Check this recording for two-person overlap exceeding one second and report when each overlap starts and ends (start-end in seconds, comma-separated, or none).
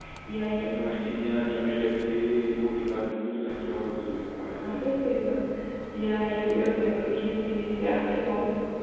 none